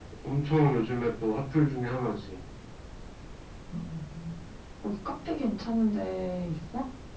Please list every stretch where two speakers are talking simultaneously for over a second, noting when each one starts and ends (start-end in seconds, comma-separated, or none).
none